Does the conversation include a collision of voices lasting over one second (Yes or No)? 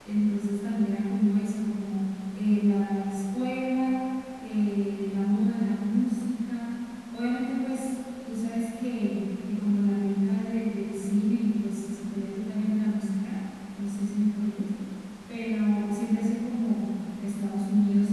No